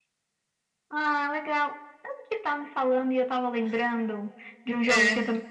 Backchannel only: Yes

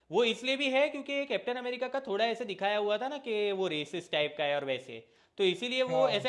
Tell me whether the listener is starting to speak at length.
No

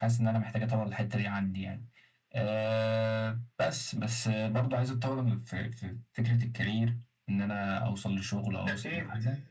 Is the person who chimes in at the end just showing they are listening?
Yes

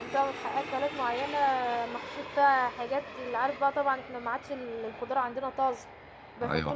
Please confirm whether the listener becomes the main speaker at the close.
No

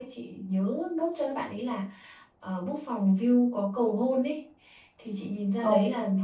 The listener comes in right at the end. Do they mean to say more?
No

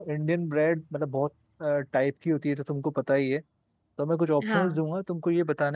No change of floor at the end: Yes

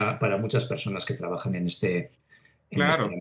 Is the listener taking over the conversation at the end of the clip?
Yes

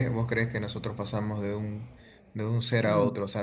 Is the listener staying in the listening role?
No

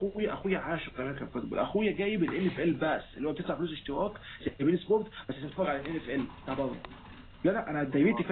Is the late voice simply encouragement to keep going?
Yes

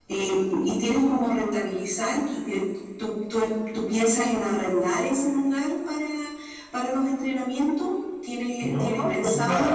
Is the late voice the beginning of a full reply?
Yes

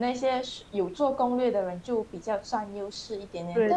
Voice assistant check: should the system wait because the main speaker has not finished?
Yes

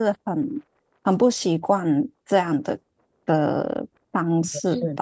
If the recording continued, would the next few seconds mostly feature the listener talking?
Yes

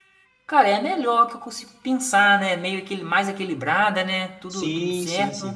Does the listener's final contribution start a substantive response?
Yes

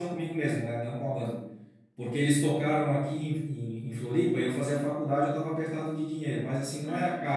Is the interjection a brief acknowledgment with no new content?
Yes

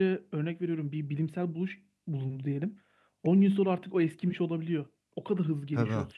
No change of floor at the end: No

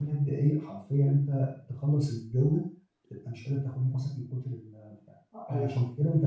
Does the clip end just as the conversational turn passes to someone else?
No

